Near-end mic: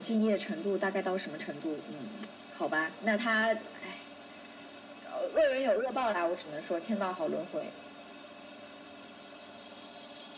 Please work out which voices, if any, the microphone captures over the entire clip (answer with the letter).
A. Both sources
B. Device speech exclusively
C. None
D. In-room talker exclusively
B